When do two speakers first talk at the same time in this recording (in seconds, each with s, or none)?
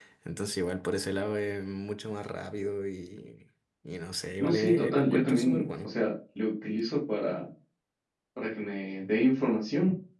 4.4 s